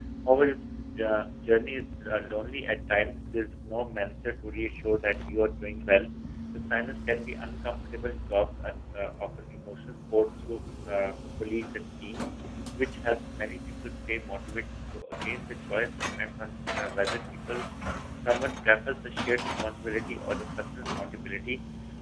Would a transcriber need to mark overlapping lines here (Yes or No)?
No